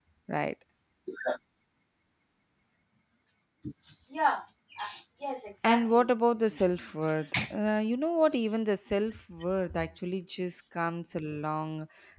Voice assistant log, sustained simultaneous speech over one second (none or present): none